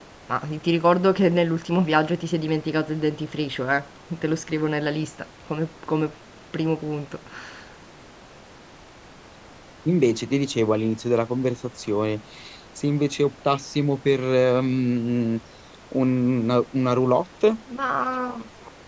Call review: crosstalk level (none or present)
none